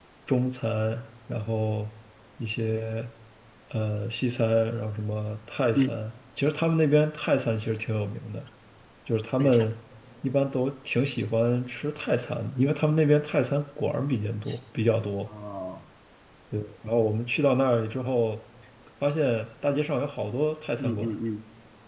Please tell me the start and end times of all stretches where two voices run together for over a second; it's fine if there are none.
none

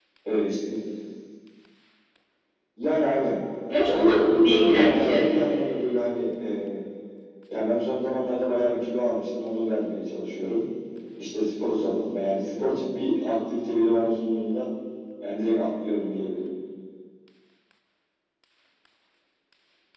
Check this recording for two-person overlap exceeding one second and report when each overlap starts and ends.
3.9-5.3

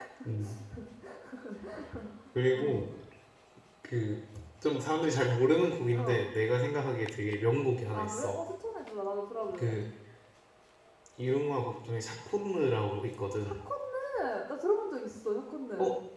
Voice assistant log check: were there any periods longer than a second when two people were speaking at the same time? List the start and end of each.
none

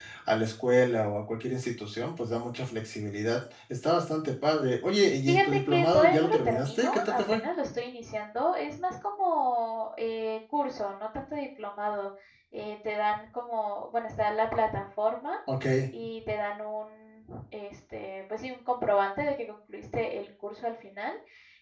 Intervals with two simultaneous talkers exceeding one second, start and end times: 5.3-7.4

